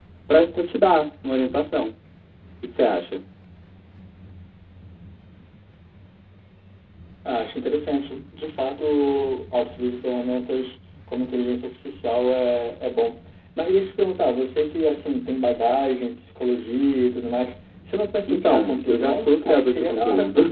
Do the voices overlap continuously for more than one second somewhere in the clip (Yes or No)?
Yes